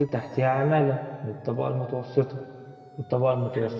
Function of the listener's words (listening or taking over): listening